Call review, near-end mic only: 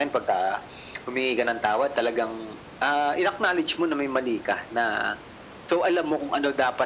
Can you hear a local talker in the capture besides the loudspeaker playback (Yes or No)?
No